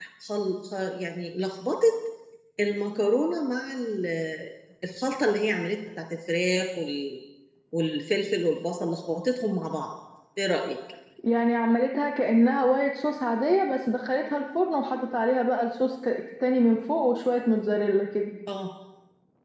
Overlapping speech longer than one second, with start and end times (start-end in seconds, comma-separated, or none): none